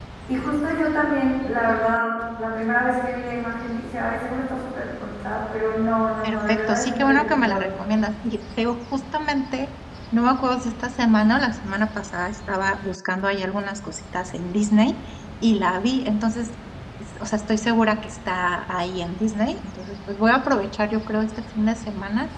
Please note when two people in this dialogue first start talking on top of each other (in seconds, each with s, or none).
6.2 s